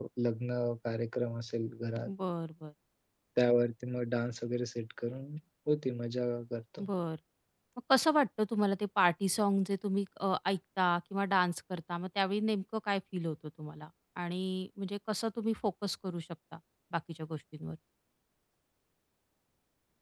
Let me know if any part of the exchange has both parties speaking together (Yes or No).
No